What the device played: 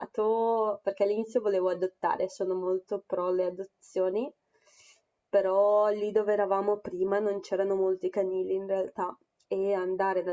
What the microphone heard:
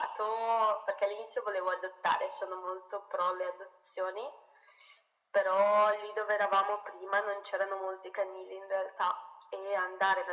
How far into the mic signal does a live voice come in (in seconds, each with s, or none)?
none